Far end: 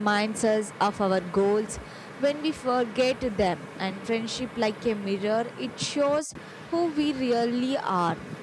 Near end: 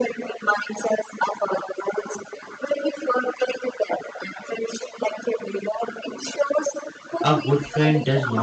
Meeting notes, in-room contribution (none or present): present